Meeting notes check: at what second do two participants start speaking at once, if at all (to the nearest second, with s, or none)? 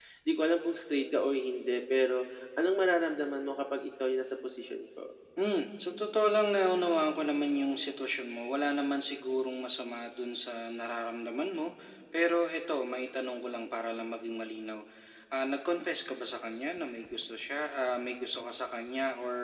none